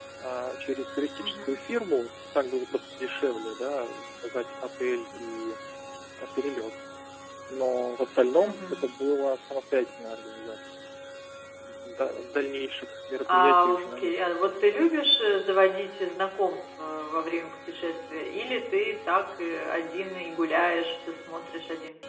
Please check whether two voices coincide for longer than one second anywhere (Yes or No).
Yes